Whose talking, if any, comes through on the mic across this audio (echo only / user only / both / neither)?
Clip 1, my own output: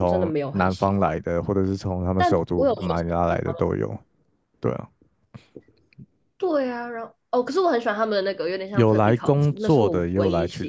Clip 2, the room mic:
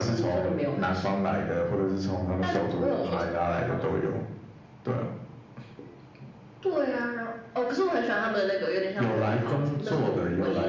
echo only